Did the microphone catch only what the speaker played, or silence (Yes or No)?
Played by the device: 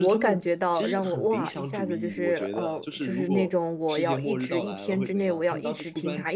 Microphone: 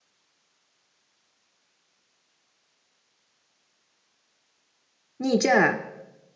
No